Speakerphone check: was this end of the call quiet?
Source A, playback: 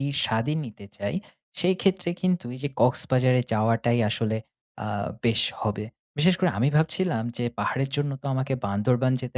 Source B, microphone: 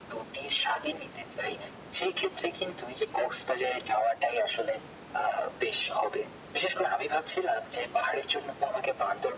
Yes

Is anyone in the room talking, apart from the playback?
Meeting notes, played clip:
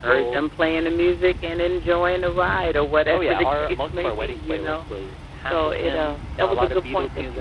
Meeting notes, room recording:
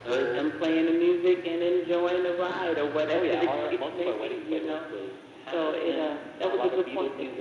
No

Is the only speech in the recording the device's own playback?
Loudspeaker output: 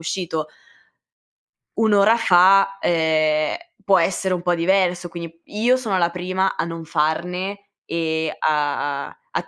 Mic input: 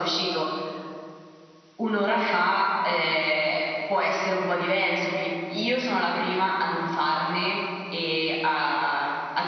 Yes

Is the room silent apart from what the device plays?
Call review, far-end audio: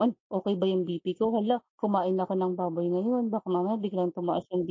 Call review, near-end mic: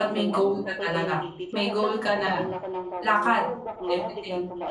No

